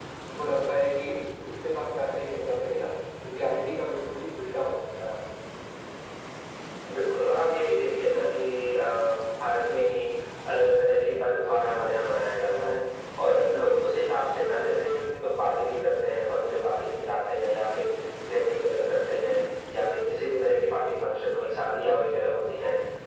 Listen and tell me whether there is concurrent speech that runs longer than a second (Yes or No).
No